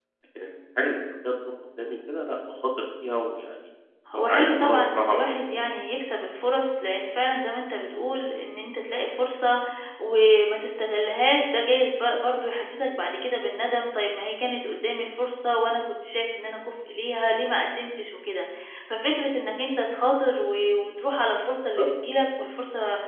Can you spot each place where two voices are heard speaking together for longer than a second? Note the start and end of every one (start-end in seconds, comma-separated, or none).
4.2-5.7